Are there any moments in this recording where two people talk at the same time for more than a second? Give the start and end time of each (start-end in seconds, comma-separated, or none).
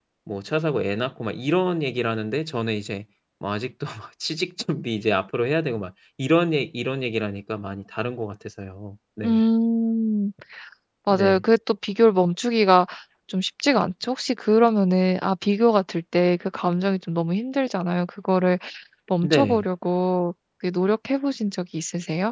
none